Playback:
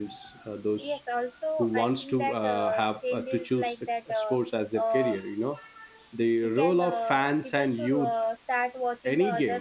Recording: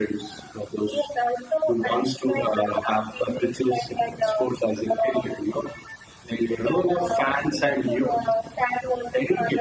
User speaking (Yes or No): No